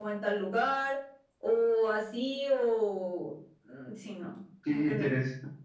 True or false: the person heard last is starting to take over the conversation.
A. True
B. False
A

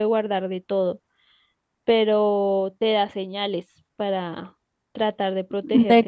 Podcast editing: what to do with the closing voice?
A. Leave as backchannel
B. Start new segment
B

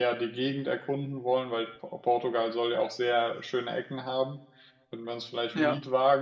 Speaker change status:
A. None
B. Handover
A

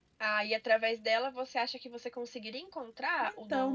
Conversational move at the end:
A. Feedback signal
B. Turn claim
B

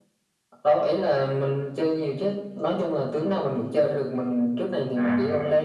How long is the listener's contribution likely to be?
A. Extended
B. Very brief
B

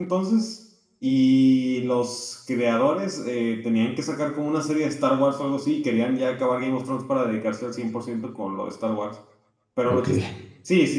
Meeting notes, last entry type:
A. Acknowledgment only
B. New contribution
A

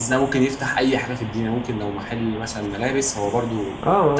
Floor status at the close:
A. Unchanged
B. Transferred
B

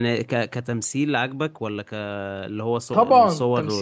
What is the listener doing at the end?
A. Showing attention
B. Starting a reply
B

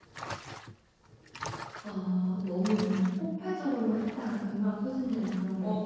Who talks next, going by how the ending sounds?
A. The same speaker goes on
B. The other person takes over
B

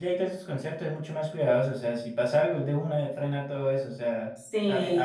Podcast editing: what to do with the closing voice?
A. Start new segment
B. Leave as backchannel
B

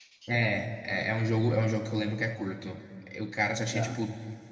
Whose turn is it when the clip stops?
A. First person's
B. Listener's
A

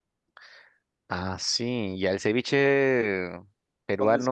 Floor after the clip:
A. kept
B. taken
A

